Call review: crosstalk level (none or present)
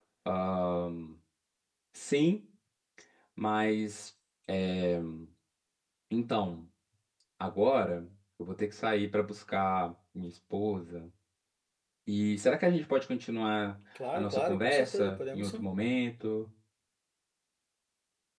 present